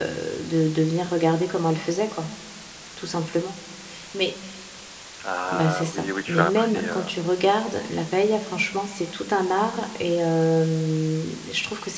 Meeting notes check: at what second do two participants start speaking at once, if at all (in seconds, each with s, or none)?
5.5 s